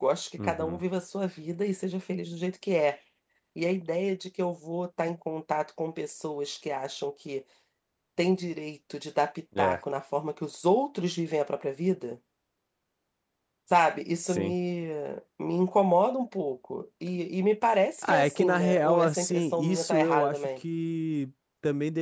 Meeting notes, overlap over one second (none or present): present